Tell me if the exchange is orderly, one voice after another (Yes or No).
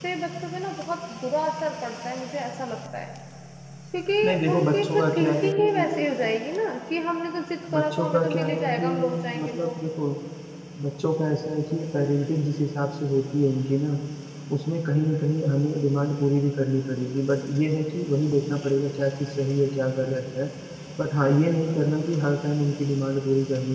No